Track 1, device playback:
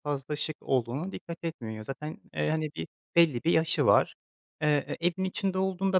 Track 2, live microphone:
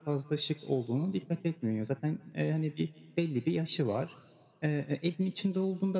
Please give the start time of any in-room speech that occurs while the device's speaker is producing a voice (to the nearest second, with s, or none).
none